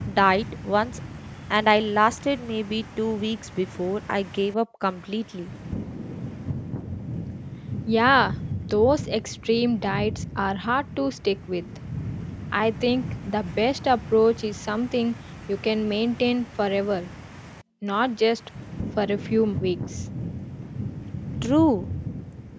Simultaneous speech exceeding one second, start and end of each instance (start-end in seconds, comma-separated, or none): none